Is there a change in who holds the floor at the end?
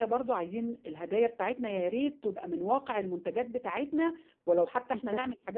No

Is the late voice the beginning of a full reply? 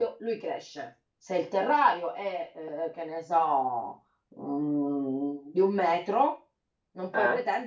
No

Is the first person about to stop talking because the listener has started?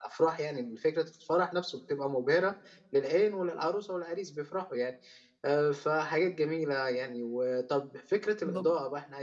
No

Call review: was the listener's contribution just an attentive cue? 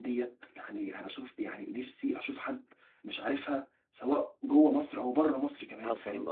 No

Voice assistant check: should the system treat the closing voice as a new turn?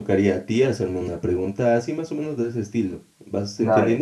Yes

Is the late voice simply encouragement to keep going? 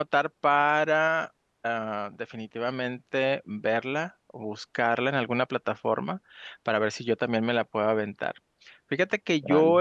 Yes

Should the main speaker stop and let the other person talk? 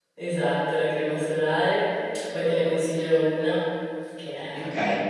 Yes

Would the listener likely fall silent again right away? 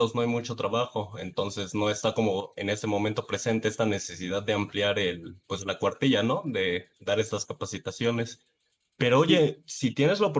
Yes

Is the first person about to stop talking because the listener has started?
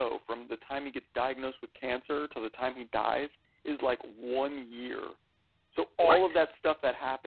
No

